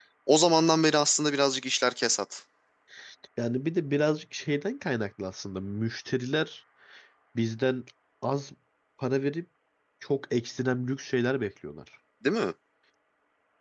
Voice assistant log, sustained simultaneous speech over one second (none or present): none